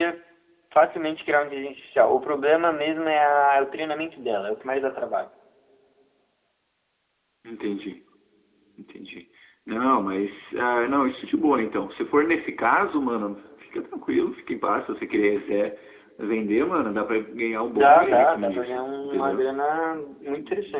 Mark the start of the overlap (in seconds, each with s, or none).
17.7 s